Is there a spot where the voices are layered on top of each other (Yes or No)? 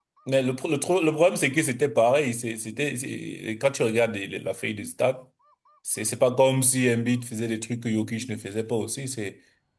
No